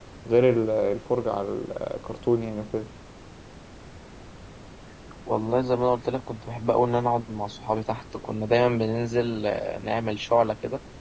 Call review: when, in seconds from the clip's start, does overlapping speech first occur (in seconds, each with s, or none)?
none